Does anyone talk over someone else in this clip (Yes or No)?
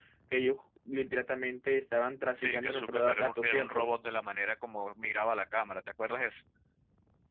Yes